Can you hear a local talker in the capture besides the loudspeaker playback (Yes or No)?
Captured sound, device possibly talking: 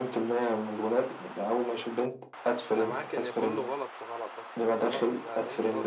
Yes